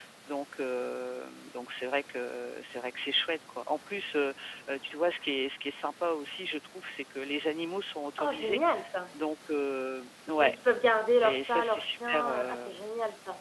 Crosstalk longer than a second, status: present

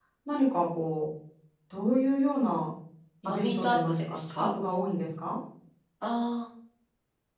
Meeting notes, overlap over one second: present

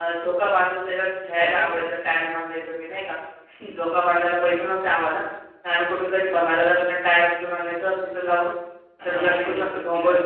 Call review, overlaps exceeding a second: present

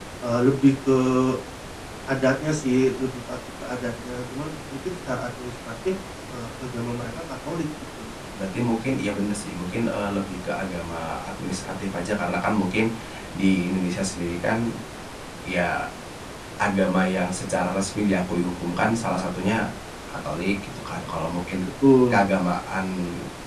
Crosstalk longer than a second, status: none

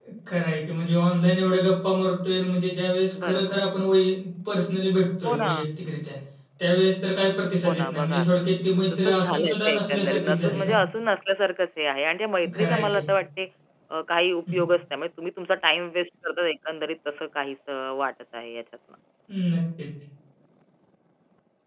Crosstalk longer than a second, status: present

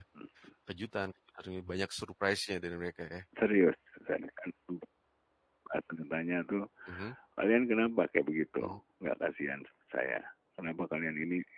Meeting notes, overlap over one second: none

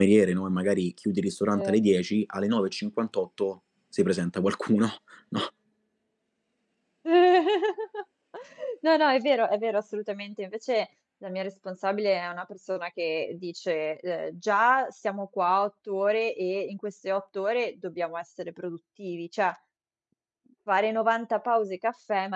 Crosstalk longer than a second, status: none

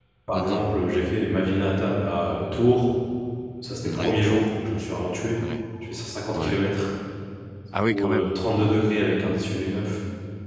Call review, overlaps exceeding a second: none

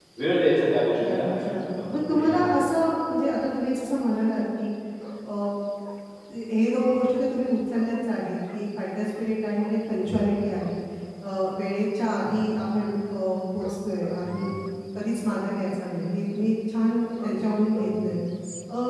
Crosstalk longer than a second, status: present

